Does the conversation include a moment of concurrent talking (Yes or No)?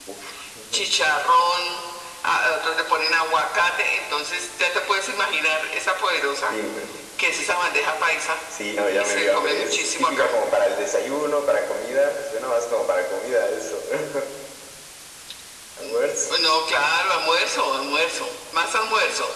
Yes